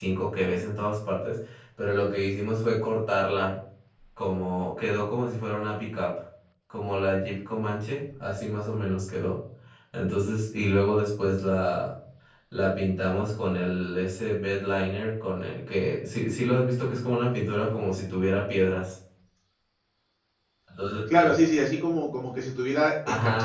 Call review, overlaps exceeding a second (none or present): none